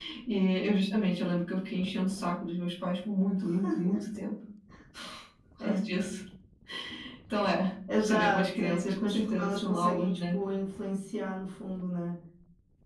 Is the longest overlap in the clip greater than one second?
Yes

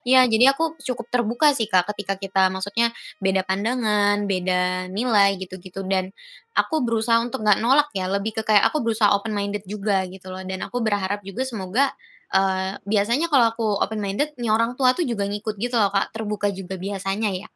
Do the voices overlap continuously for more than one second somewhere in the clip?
No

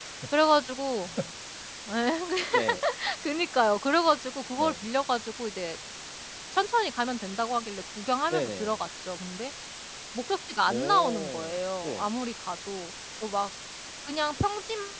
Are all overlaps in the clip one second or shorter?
No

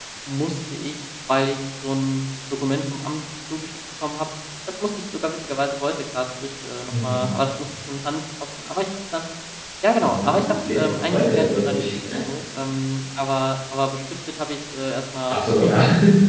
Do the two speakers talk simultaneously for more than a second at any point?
Yes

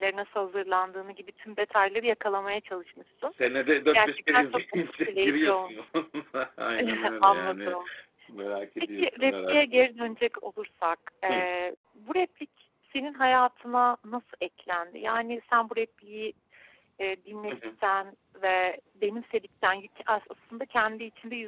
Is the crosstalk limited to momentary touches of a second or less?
No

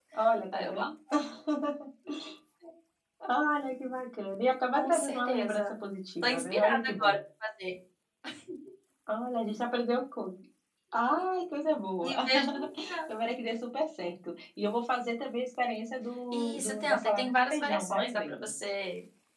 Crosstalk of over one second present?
Yes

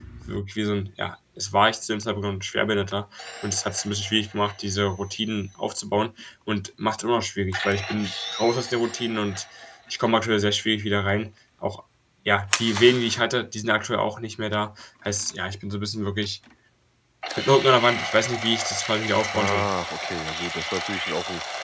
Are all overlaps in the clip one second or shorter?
Yes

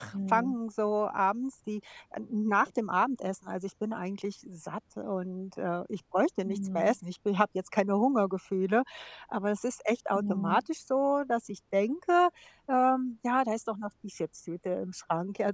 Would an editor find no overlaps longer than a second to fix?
Yes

